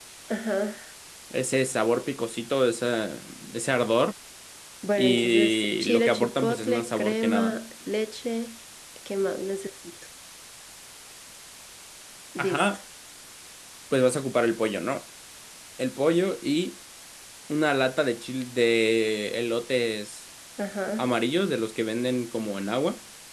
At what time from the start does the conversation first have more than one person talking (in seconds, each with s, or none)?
5.0 s